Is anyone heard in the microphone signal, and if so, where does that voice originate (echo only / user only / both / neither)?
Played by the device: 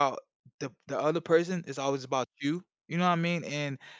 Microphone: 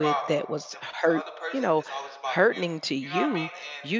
both